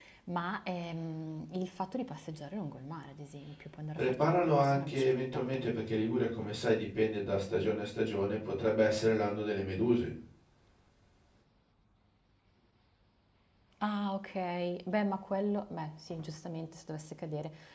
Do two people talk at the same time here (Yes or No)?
Yes